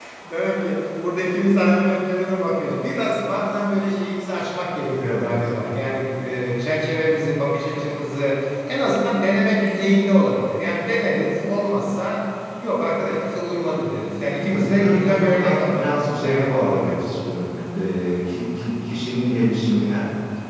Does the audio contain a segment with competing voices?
Yes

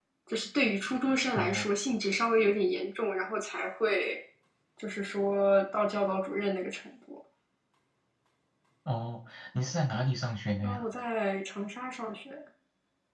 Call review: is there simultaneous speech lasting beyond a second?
No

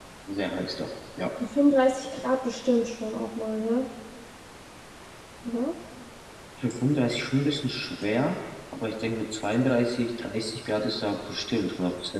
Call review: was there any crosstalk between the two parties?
No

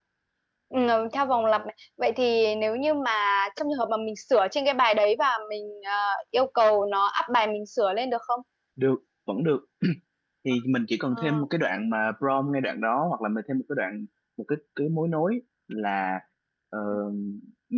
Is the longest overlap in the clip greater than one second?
No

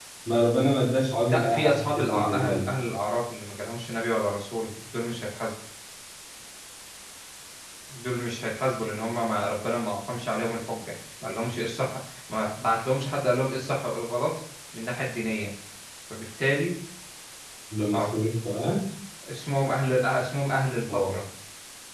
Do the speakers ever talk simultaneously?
Yes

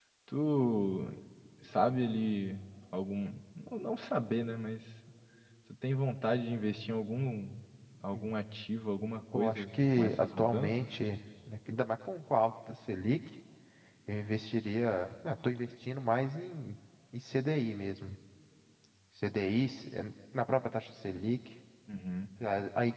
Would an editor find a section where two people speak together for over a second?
Yes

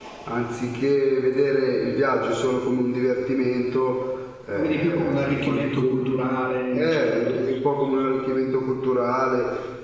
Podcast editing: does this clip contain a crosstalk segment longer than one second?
Yes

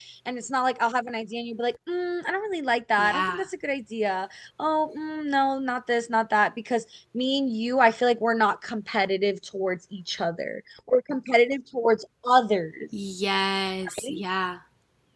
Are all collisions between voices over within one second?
Yes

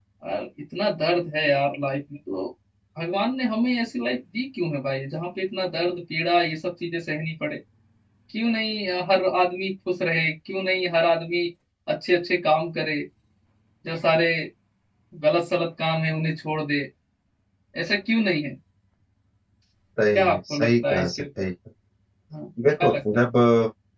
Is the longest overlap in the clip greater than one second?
Yes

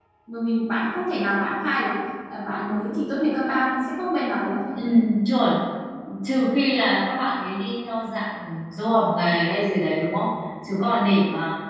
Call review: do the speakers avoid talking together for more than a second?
Yes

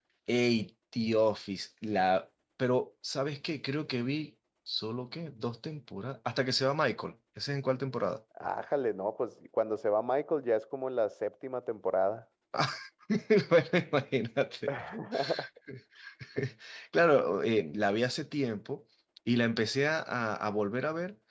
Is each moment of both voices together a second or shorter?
Yes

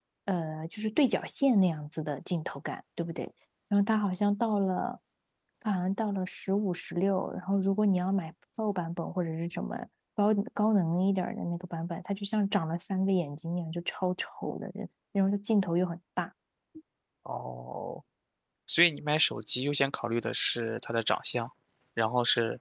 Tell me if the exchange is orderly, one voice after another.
Yes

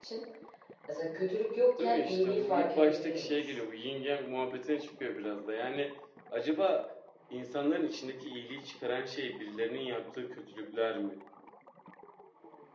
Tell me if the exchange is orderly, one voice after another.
No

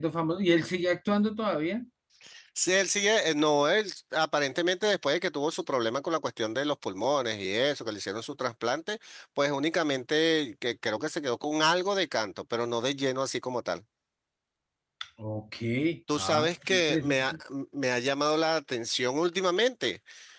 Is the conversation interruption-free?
No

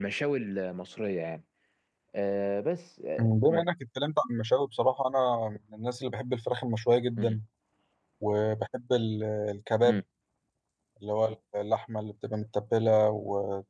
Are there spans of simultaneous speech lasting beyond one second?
No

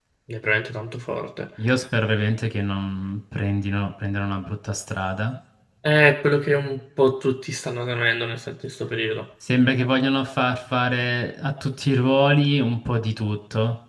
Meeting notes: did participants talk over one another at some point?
No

